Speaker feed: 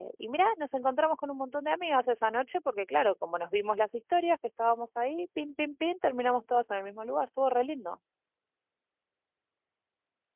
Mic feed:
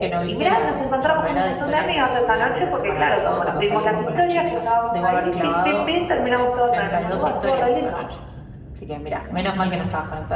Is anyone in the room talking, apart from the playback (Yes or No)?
Yes